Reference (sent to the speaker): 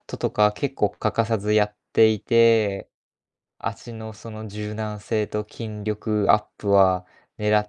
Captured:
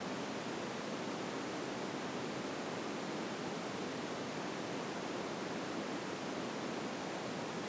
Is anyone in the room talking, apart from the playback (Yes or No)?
No